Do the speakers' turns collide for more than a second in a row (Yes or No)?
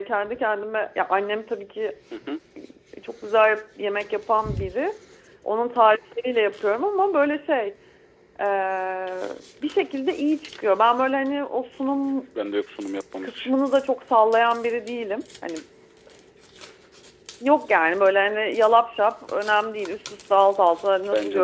No